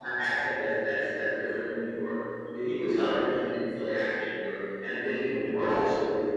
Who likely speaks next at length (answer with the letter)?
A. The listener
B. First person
B